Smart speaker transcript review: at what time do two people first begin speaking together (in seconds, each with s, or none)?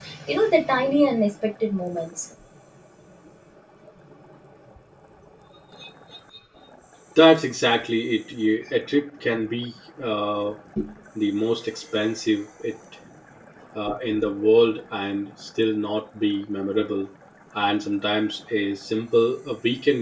none